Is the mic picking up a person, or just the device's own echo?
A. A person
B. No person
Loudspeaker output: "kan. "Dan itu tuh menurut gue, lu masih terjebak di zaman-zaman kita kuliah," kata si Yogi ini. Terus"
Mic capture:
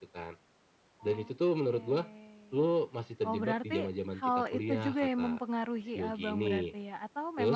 A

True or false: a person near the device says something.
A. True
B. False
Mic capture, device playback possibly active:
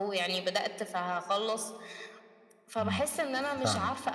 A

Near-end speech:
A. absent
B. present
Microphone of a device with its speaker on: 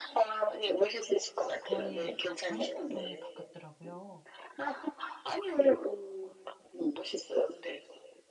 B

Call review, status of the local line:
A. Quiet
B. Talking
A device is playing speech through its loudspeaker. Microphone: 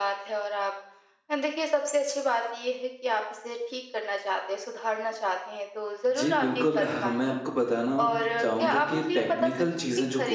B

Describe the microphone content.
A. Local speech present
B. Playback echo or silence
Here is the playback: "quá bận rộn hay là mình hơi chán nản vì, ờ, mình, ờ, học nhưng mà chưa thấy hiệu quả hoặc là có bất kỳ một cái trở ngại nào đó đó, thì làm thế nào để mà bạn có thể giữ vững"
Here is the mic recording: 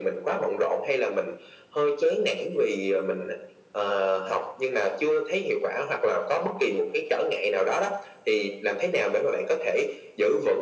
B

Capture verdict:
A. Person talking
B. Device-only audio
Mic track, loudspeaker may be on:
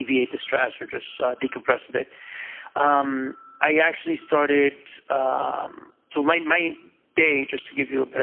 B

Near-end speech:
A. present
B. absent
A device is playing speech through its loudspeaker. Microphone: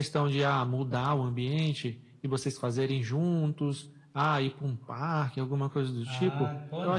A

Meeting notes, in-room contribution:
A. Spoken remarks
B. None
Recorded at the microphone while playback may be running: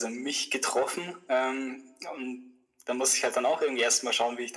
B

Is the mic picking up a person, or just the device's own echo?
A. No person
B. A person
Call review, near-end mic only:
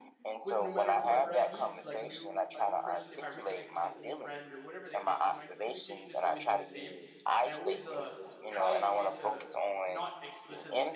B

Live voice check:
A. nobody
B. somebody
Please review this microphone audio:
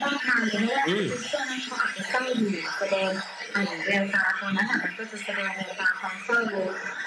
B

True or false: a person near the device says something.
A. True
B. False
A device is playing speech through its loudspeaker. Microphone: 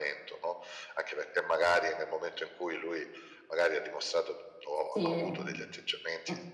A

